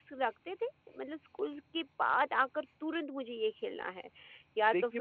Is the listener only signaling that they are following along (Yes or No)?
No